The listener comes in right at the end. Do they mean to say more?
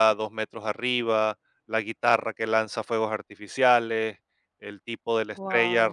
No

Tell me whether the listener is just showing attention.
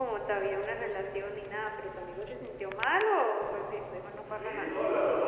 No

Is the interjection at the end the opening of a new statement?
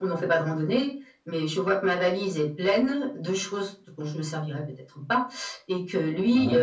No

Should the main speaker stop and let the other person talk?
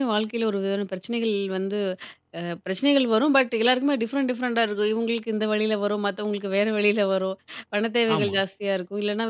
No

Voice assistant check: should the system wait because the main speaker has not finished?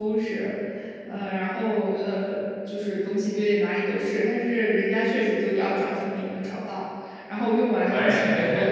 Yes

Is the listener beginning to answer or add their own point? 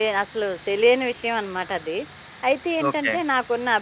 No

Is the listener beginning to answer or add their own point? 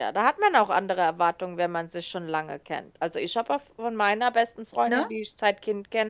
No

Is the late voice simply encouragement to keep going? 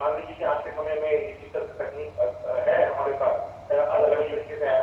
Yes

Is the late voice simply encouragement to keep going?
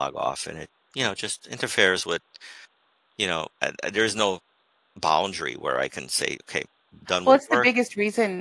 No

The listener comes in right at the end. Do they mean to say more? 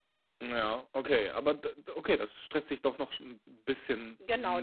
Yes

